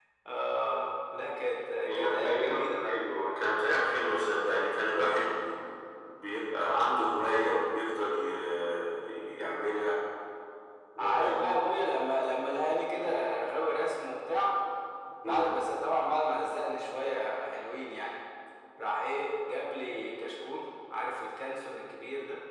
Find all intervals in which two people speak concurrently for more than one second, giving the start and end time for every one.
1.9-3.1

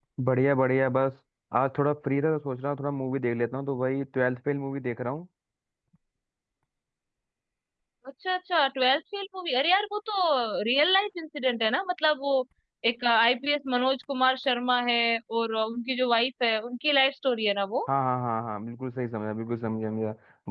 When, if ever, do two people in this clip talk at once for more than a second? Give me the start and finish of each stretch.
none

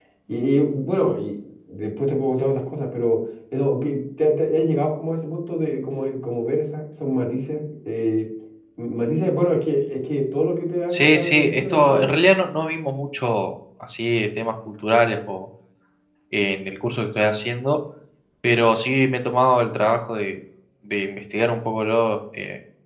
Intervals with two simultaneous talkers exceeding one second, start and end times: 10.9-12.2

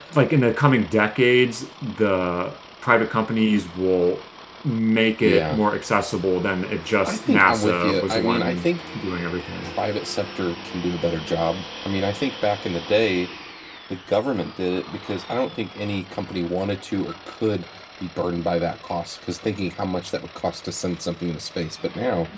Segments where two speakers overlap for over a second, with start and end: 7.0-8.7

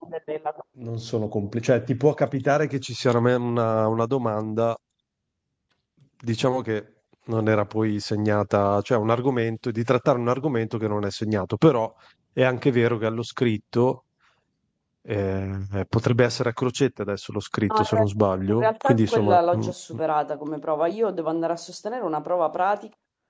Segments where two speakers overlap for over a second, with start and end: 18.5-19.7

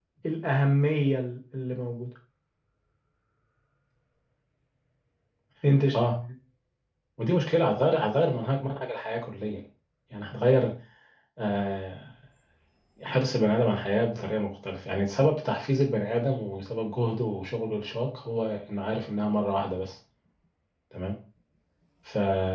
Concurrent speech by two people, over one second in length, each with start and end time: none

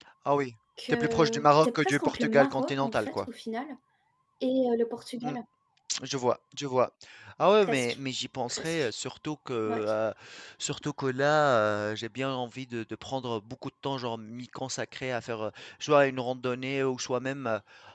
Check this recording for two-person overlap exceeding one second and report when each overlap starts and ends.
0.9-3.3

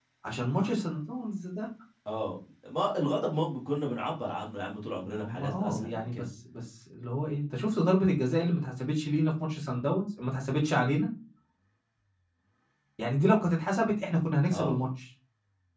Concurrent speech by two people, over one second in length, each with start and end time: 5.0-6.2

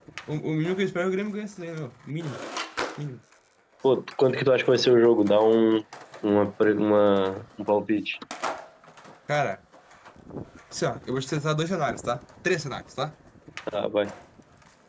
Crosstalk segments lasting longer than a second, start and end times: none

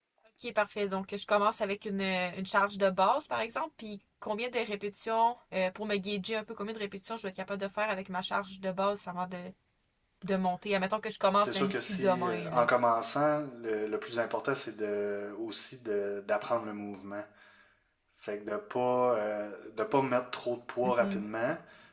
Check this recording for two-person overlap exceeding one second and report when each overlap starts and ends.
11.4-12.7

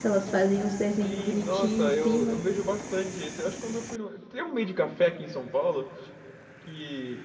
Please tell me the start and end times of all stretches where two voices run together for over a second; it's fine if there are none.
1.0-2.4

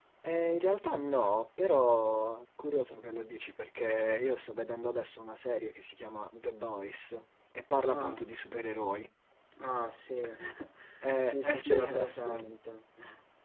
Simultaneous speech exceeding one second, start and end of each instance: 11.2-12.6

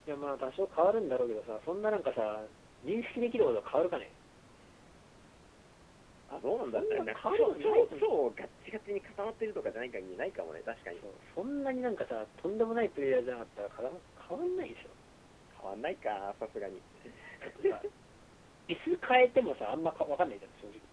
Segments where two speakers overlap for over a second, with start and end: 6.7-8.1

